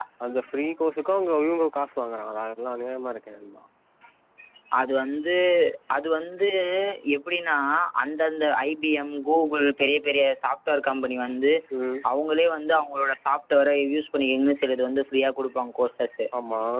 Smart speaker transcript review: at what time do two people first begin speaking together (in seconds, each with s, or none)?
none